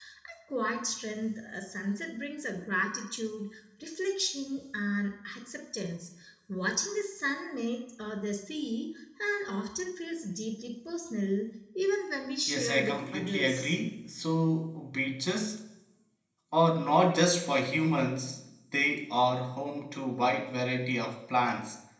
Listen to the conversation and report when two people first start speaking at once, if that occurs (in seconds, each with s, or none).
12.5 s